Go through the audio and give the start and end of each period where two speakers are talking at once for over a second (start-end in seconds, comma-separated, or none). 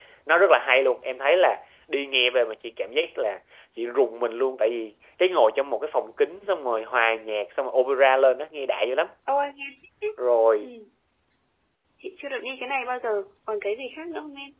none